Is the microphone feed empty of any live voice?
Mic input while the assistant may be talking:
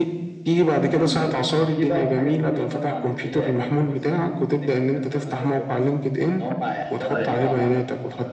No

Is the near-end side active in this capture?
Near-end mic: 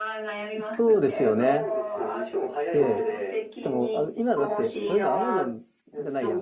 Yes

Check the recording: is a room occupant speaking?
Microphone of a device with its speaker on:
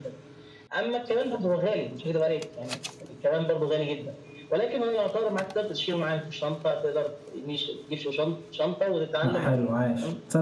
Yes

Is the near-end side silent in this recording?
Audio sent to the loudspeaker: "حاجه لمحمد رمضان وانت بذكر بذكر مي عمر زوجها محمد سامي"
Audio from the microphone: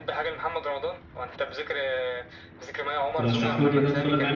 No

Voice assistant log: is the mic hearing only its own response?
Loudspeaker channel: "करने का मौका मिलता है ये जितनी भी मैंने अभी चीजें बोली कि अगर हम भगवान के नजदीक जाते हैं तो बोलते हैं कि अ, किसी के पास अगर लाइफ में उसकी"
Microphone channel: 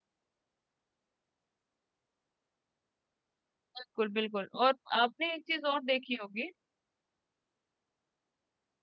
No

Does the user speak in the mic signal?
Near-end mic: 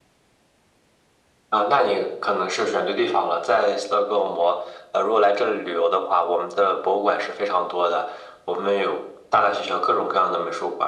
No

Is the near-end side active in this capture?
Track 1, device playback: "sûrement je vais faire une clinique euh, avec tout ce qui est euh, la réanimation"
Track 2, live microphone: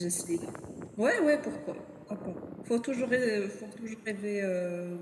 Yes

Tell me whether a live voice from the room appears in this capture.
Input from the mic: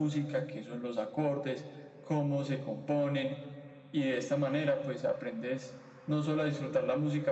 No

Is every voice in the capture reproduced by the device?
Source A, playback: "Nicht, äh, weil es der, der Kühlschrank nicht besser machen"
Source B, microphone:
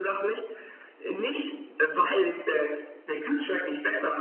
Yes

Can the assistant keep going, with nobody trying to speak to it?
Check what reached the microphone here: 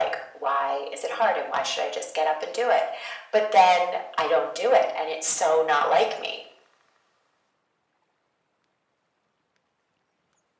Yes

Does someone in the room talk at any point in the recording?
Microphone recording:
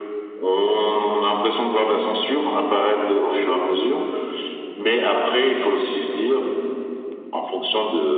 No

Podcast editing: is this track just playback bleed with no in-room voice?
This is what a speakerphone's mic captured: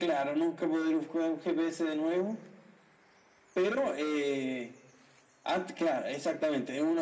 Yes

